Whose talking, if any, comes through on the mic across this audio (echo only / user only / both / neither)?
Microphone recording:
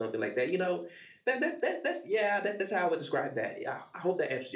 echo only